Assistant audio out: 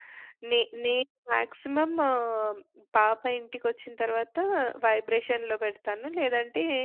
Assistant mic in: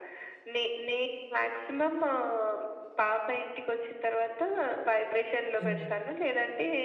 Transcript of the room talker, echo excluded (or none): అవునండి.